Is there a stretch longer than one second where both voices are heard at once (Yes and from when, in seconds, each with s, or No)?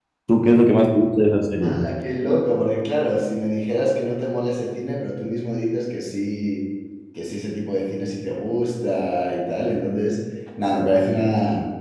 No